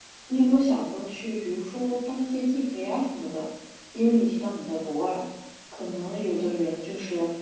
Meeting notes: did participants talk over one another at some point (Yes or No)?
No